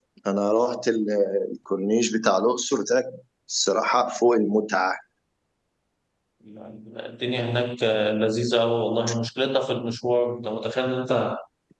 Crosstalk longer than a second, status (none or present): none